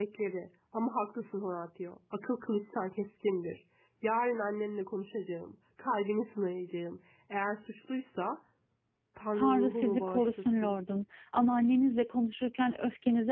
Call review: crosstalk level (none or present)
present